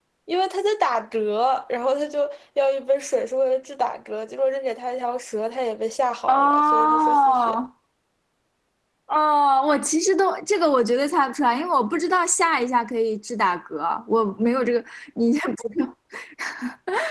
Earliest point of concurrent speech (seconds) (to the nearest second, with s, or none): 6 s